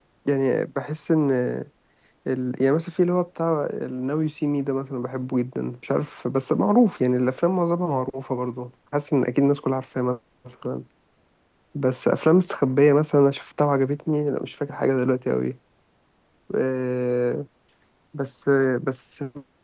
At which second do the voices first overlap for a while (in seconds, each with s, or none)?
none